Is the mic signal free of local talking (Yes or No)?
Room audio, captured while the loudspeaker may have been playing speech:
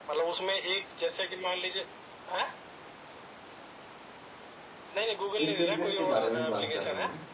No